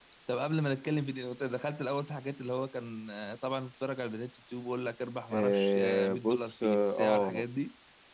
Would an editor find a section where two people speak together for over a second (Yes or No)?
Yes